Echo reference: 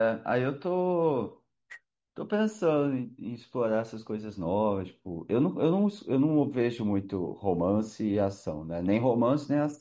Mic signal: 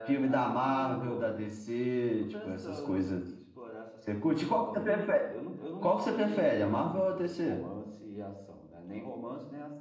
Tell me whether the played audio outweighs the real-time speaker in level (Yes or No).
No